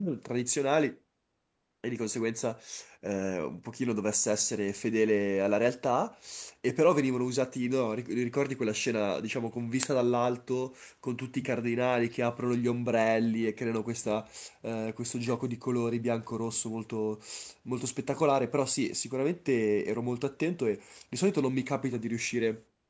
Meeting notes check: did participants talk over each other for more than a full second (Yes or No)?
No